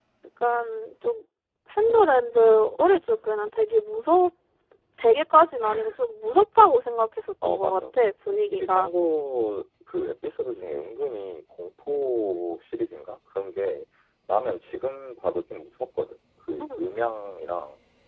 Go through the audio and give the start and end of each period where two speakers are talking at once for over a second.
none

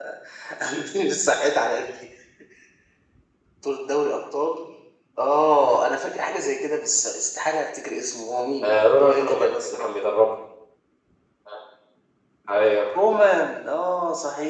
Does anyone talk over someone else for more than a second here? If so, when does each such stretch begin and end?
8.6-9.9

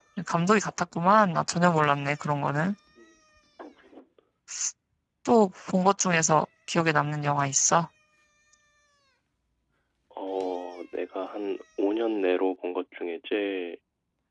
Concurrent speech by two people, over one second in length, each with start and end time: none

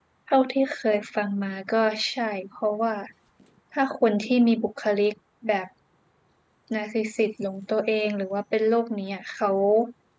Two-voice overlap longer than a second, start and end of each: none

